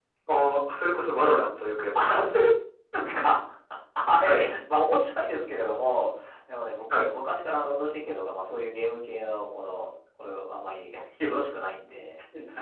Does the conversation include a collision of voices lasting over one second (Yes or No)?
No